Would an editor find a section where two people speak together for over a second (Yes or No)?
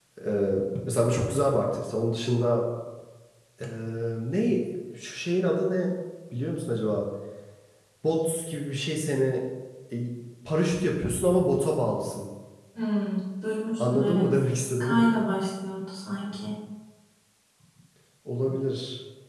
No